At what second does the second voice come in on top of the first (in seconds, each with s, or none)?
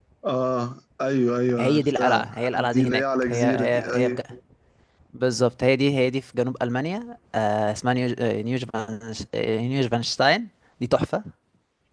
1.6 s